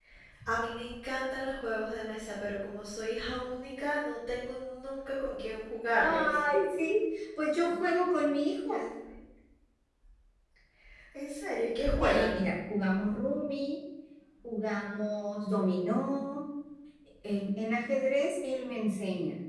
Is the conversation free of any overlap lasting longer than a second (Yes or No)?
Yes